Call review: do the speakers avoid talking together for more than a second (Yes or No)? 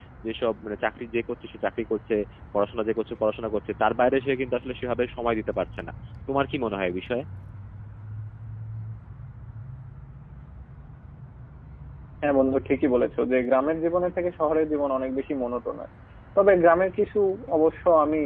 Yes